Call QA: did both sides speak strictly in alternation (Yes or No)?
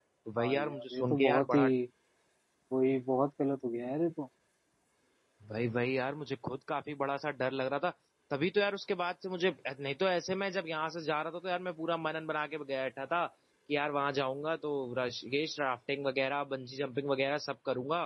No